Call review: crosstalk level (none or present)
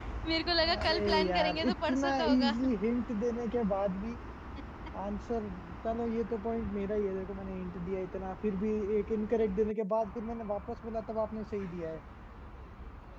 present